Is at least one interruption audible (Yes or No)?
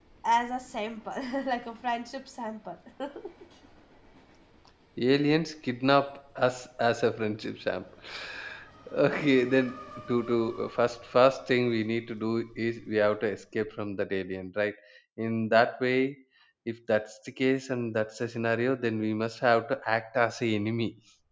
No